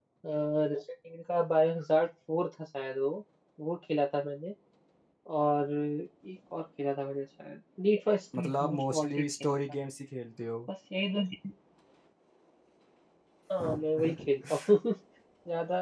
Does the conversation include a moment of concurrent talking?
Yes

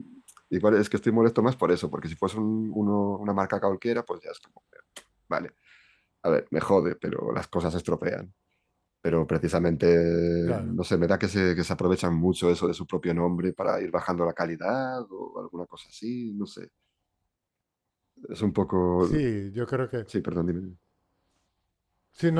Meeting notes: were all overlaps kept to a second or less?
Yes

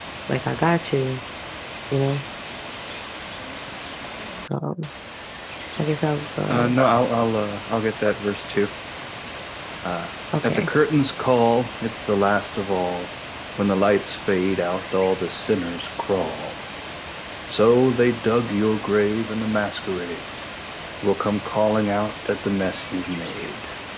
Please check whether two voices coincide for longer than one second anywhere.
No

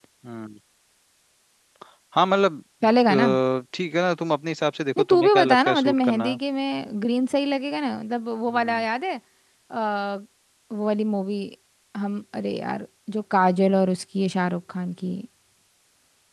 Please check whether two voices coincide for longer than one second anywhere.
Yes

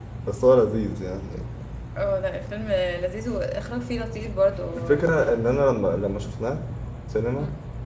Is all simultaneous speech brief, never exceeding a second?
Yes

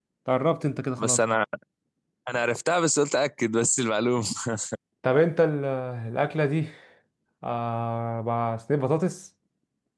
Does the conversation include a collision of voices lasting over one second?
No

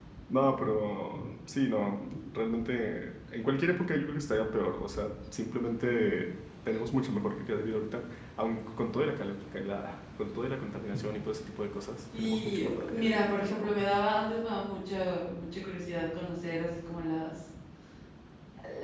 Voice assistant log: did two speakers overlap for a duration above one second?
Yes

